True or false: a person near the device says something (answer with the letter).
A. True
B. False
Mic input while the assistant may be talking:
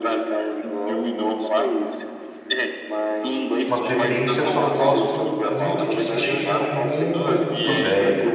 A